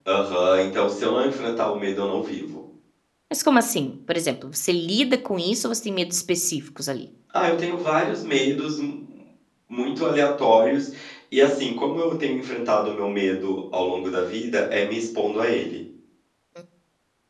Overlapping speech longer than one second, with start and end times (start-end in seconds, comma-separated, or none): none